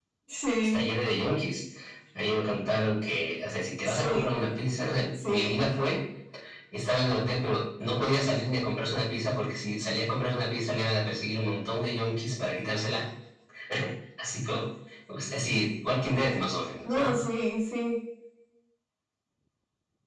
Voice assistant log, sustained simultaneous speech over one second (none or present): none